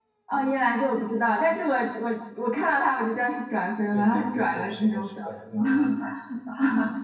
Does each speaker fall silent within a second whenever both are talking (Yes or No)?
No